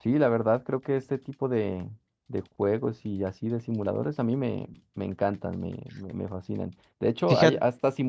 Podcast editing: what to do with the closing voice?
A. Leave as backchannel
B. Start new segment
A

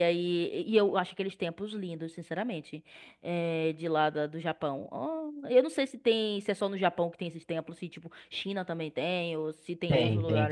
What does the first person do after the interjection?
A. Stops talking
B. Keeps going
A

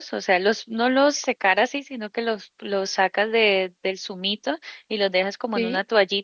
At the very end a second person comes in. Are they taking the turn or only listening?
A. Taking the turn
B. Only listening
B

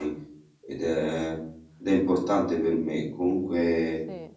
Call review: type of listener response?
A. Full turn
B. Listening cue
B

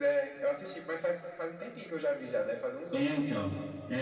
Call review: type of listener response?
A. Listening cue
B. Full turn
B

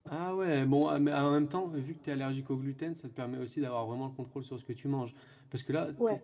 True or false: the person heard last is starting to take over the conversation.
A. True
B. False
B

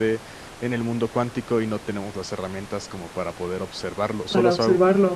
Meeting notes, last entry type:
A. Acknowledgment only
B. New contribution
A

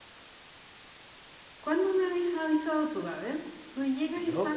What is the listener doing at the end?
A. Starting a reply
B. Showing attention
B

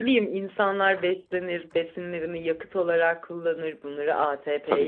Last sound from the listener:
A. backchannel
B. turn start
A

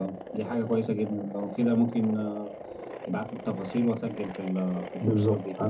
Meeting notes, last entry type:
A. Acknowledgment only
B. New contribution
B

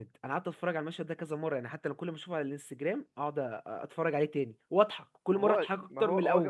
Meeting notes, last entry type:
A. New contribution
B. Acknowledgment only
A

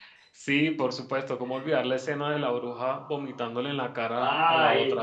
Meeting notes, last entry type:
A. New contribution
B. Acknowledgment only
A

